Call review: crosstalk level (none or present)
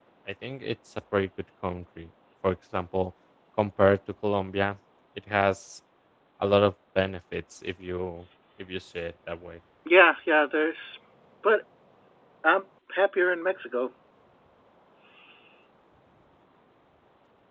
none